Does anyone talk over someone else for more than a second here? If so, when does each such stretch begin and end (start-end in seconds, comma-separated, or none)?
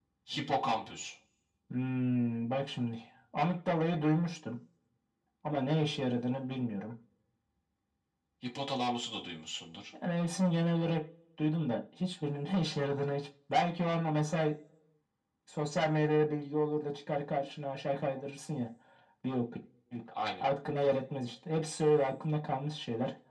none